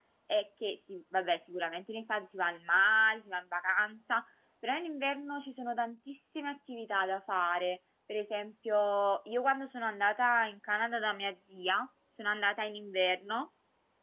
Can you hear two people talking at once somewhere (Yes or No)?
No